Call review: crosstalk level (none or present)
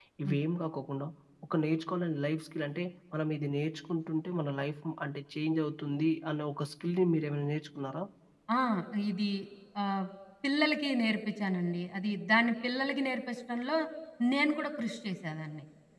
none